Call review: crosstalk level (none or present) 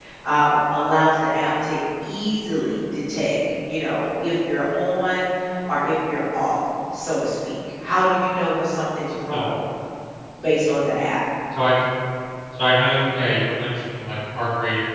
none